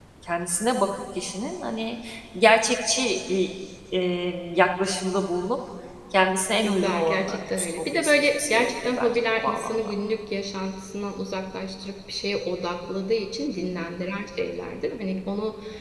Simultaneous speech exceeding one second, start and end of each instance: 6.6-9.9

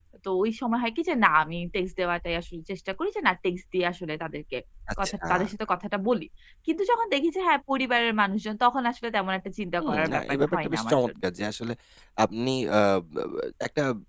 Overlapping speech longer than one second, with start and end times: 9.8-11.1

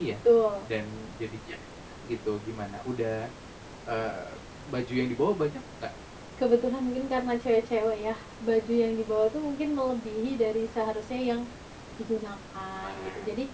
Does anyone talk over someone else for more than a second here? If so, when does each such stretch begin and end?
none

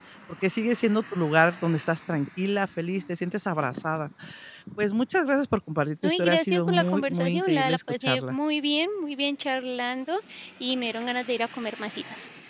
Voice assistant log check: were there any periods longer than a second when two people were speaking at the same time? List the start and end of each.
6.0-8.4

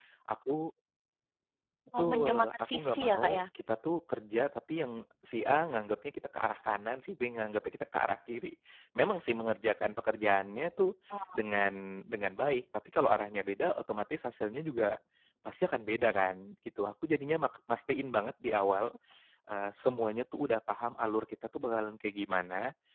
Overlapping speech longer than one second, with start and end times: 2.0-3.4

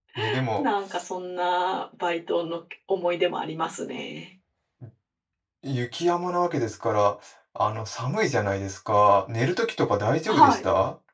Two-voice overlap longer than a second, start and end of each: none

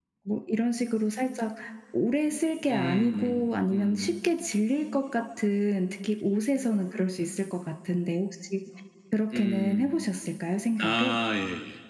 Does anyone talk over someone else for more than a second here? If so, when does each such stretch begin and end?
2.7-4.1

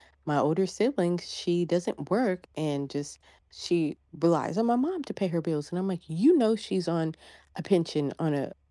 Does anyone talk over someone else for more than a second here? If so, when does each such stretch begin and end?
none

